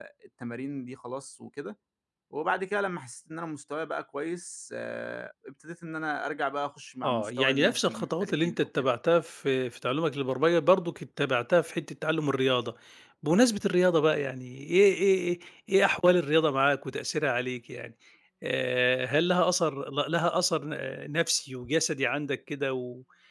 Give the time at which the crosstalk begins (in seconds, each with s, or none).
7.0 s